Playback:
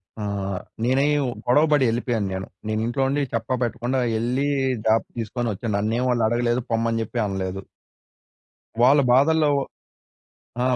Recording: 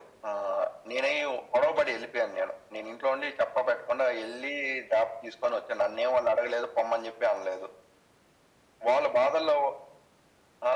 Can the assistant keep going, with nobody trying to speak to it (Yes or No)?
Yes